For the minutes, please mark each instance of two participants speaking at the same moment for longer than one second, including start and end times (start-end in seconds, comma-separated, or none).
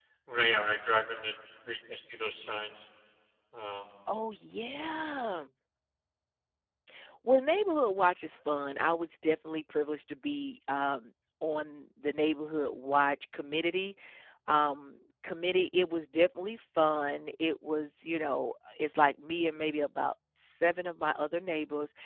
none